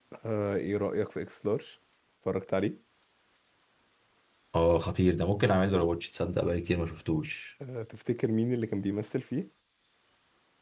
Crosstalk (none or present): none